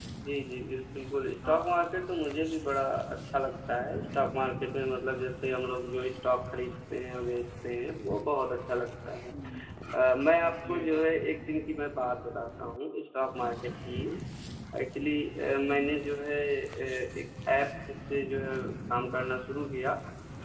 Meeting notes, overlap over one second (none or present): none